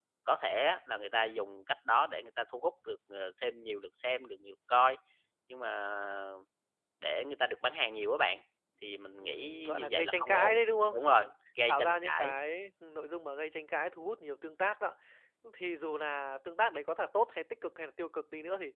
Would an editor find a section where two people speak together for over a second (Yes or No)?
Yes